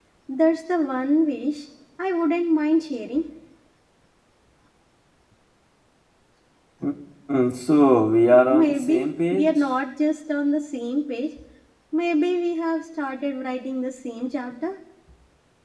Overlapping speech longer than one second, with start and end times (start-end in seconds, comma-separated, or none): 8.4-9.7